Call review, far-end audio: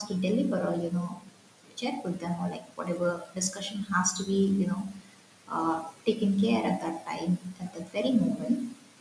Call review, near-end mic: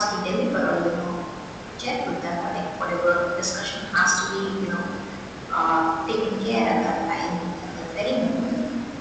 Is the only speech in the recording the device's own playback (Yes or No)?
Yes